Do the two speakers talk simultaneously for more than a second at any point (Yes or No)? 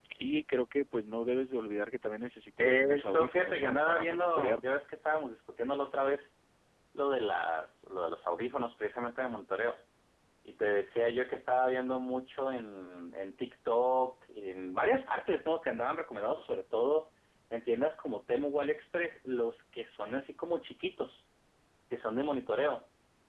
Yes